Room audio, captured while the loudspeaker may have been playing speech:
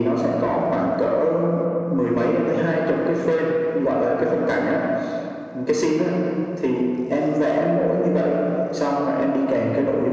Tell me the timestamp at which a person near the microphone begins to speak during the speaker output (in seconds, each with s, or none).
none